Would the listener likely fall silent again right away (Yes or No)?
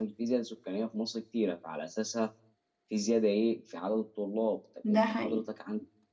Yes